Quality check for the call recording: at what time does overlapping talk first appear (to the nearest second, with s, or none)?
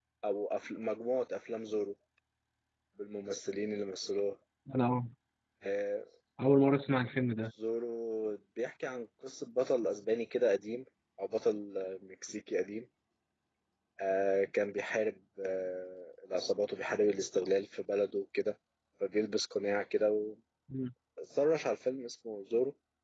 none